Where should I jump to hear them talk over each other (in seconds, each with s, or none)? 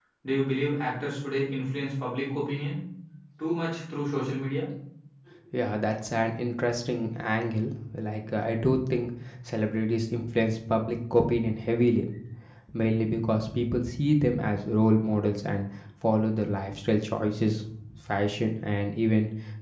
none